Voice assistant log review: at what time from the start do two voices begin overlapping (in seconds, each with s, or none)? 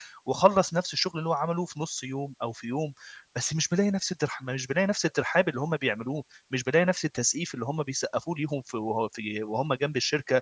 none